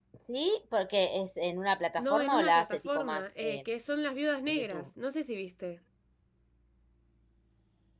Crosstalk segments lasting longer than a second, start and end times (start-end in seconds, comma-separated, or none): 2.0-3.6